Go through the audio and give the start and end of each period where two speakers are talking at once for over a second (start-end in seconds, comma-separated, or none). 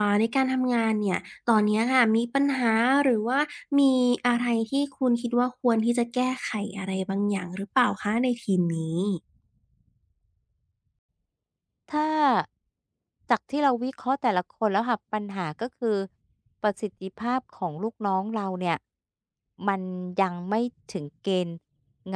none